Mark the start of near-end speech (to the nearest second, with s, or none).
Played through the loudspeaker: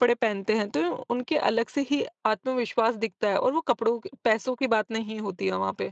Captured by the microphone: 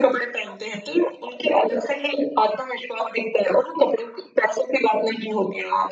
none